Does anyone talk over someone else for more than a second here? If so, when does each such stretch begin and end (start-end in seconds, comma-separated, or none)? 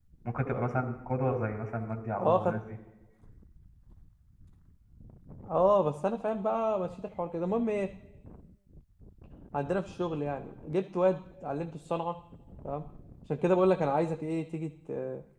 none